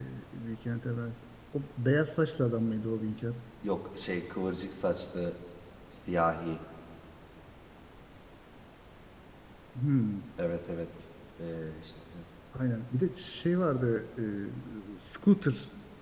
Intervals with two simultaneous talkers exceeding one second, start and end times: none

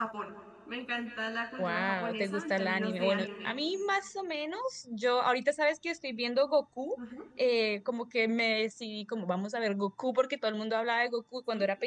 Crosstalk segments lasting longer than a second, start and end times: 1.6-3.5

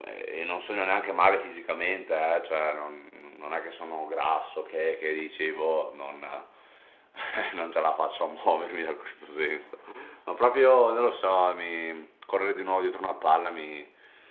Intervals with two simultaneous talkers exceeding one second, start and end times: none

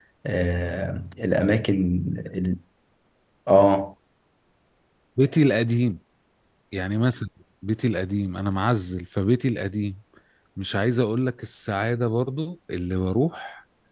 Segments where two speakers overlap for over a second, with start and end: none

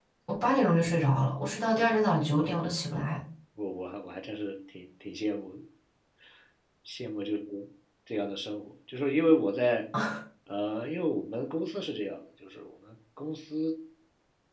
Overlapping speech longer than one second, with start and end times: none

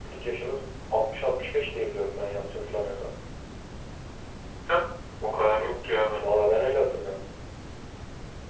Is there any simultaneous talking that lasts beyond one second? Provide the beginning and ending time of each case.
none

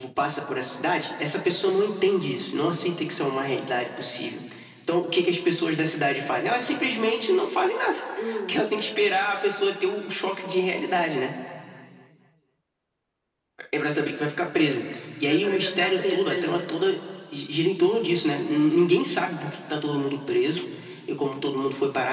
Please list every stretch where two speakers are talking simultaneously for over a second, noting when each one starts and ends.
15.2-16.6

